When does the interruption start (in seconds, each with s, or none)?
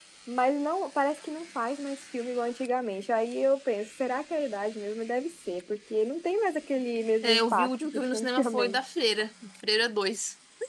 7.2 s